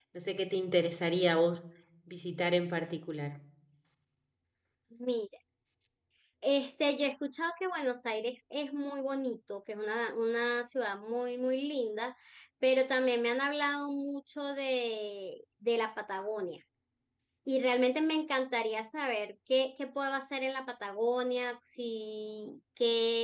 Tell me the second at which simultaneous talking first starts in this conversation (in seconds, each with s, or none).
none